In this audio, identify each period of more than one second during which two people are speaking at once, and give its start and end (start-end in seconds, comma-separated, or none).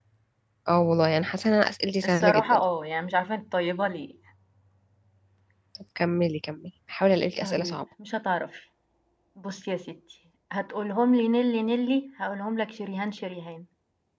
none